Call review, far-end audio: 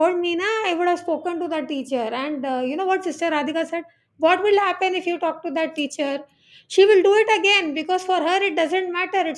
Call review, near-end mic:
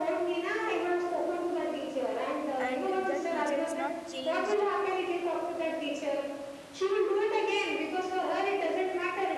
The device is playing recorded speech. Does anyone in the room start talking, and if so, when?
2.6 s

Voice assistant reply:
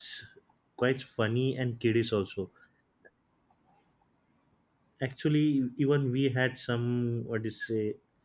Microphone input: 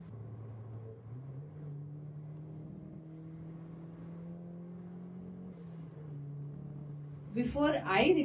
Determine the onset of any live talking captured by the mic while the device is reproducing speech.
7.3 s

